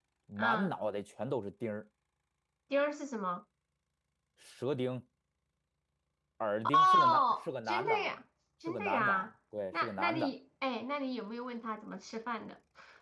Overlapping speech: Yes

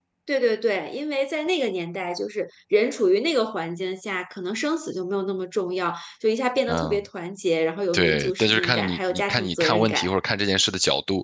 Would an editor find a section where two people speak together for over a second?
Yes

